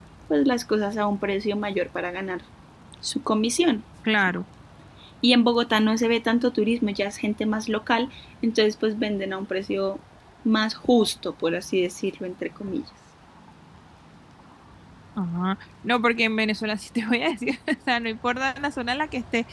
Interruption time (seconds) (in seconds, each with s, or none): none